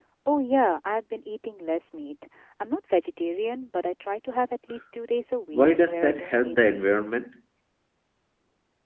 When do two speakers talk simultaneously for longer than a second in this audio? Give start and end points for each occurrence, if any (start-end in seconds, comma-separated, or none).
5.5-6.9